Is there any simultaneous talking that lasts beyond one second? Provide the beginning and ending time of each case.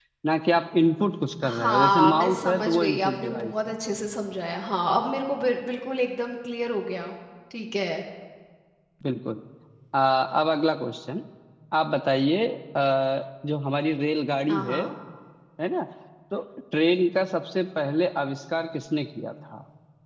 1.4-3.7

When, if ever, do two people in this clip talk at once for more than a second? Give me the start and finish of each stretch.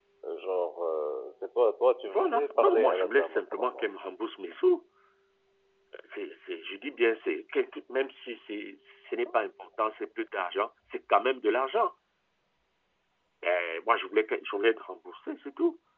2.1-3.8

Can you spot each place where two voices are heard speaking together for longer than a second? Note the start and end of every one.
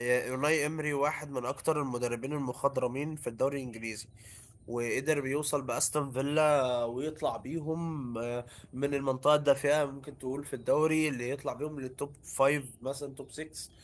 none

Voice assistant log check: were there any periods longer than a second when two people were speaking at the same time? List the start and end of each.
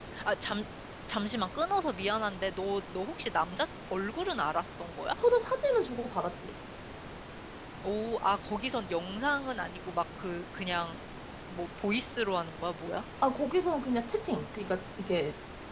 none

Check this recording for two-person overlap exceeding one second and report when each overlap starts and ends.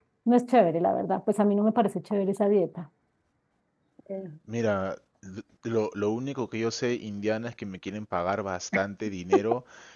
none

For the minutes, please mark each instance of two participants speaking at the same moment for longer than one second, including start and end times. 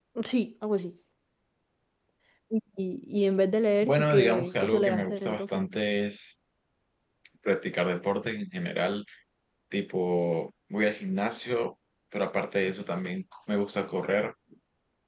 3.8-5.6

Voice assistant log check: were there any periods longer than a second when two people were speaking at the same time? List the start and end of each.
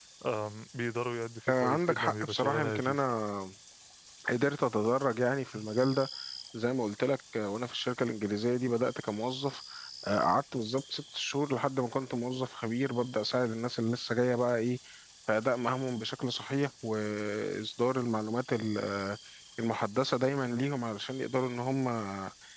1.5-3.0

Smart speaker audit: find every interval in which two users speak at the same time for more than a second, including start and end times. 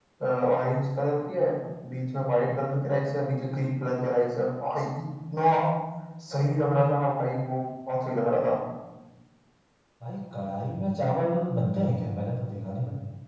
none

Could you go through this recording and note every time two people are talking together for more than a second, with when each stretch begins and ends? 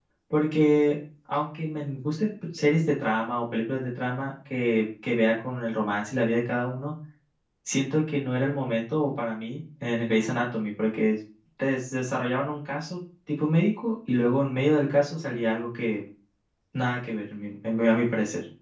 none

